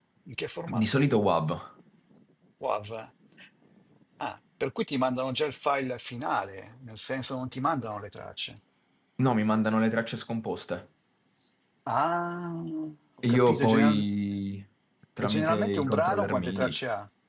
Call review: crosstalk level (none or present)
present